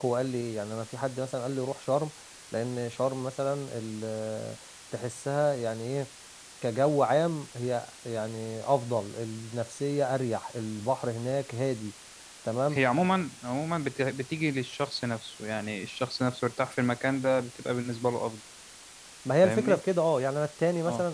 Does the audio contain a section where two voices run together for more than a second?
No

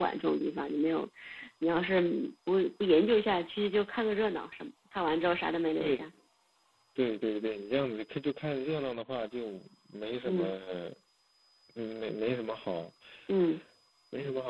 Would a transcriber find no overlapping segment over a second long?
Yes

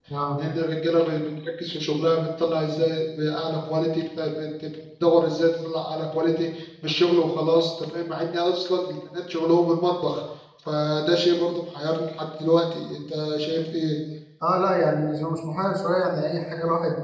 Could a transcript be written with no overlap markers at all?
Yes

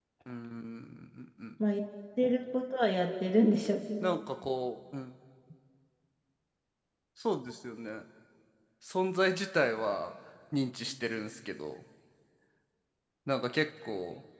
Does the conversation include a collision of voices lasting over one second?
No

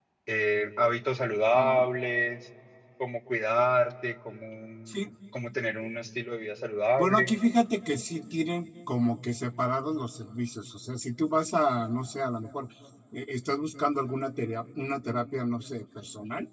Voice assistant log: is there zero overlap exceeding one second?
Yes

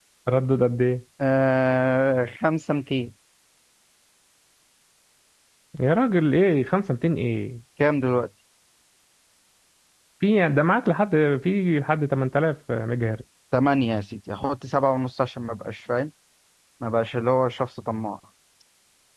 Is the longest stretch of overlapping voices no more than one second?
Yes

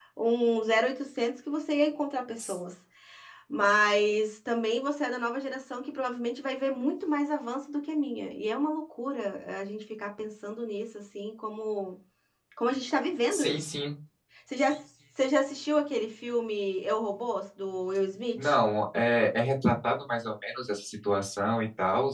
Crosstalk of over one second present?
No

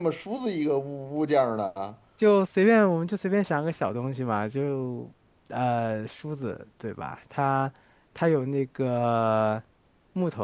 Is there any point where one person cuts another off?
No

